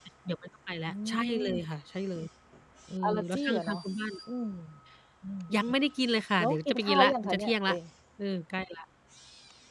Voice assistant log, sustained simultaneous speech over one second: present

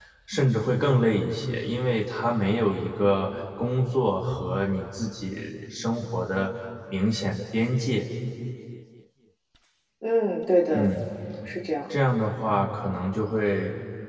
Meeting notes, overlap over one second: none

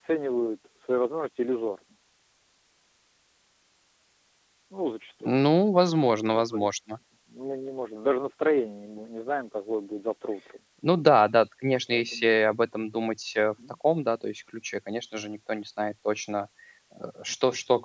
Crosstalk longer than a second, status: none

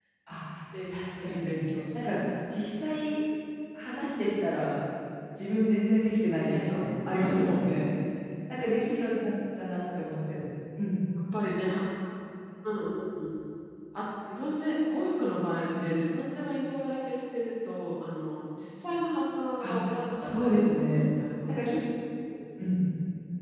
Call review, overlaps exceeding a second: present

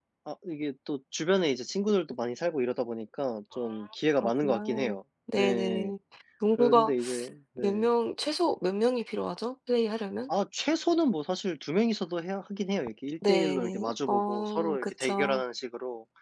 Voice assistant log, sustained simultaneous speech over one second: present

